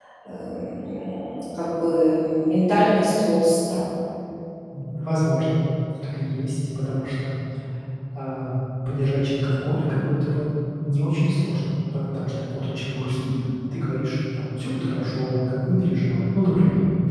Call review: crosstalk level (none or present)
none